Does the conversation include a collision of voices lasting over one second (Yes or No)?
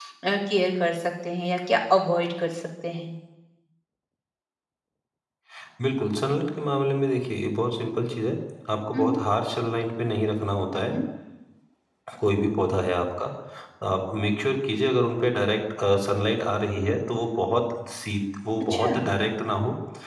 No